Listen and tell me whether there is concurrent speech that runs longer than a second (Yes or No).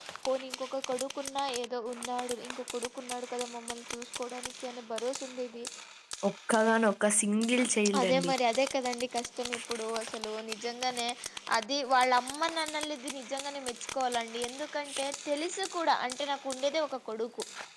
No